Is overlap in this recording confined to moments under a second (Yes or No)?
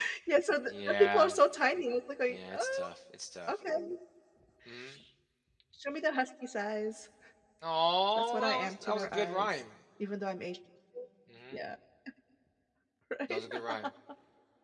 No